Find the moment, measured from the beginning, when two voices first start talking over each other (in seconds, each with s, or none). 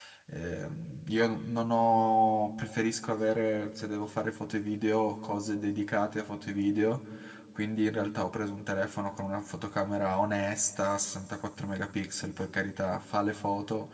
none